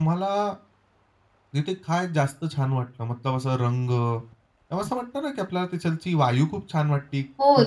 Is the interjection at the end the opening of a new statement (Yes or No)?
Yes